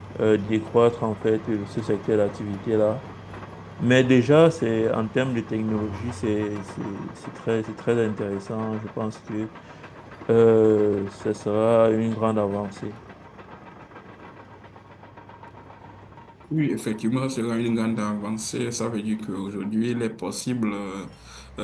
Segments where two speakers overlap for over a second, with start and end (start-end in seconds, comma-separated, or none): none